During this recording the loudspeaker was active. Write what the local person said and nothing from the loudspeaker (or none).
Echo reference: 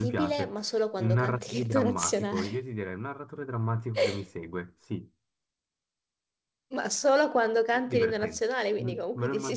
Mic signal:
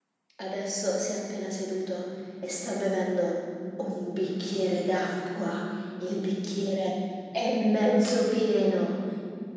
adesso si è appena seduto e sta bevendo un bicchiere d'acqua. Il bicchiere è mezzo pieno.